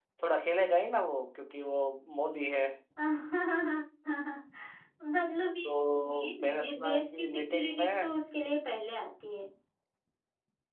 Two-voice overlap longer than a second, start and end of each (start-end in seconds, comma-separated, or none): 5.6-8.1